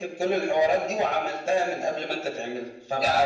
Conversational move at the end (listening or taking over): taking over